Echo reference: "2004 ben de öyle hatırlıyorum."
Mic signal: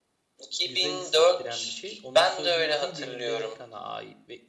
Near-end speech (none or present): present